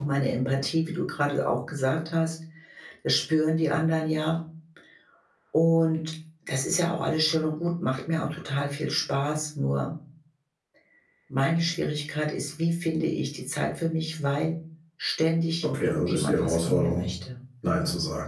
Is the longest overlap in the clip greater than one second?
Yes, from 15.6 s

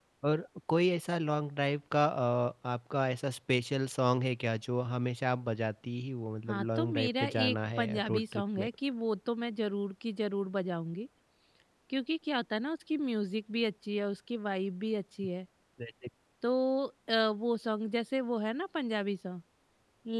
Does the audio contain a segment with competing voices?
Yes, from 6.5 s

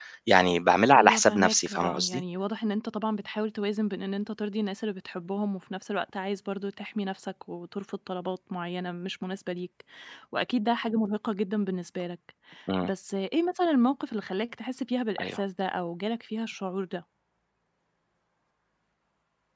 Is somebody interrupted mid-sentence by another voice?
Yes, from 1.0 s

